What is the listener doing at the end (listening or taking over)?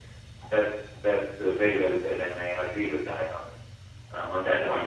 taking over